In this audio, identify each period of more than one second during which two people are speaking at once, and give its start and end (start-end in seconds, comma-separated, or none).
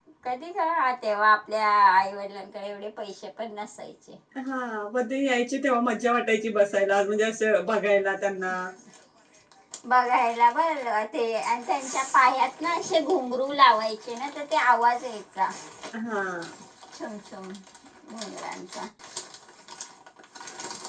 none